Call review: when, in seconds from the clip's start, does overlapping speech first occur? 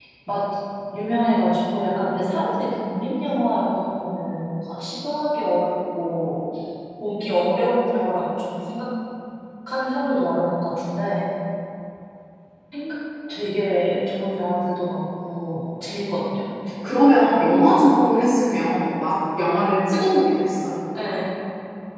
none

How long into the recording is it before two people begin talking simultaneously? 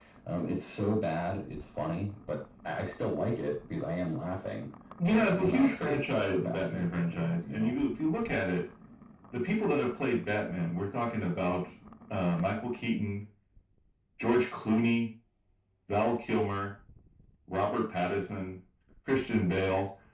5.1 s

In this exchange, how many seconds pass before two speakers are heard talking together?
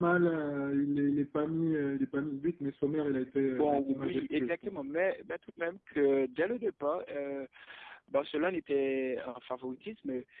3.5 s

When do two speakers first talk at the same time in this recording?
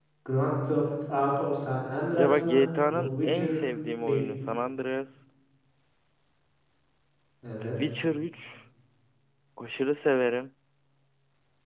2.2 s

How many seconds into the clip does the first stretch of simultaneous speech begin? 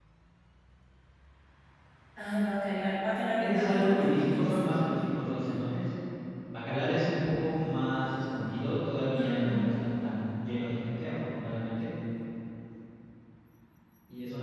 3.4 s

